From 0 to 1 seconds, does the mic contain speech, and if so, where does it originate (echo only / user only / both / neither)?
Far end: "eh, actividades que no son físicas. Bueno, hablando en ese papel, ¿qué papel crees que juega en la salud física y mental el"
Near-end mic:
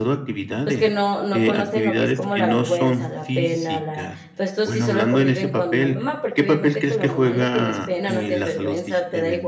both